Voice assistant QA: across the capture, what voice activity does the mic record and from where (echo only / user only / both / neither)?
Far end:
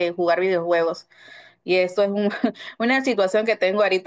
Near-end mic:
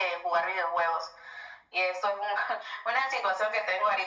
echo only